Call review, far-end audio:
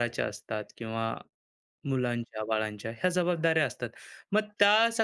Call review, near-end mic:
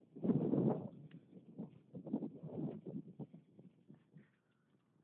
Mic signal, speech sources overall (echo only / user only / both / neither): neither